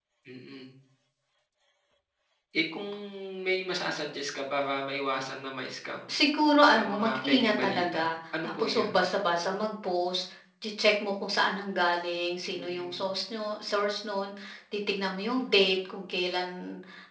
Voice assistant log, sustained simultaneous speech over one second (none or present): present